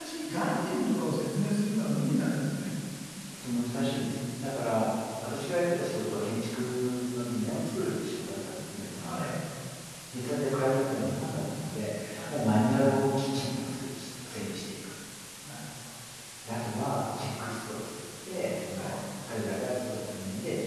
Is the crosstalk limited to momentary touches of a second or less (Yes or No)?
Yes